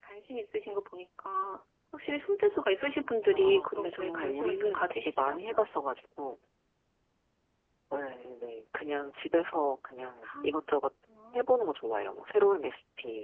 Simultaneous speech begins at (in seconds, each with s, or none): 3.2 s